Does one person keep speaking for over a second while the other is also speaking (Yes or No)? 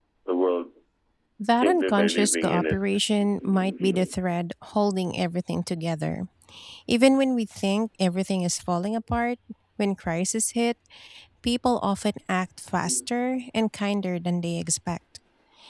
Yes